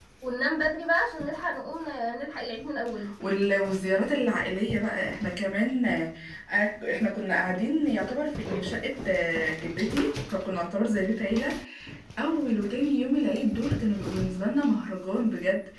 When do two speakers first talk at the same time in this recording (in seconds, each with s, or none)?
none